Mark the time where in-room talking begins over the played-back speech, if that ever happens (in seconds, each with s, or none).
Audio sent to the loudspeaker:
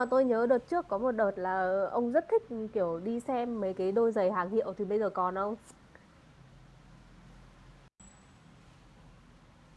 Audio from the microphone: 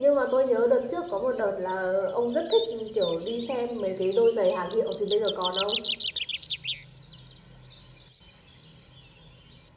none